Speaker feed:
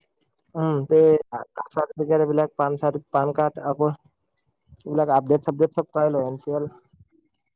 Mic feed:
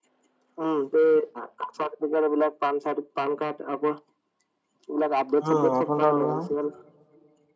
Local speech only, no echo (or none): উম আইফোন এটা ল'লো নহয়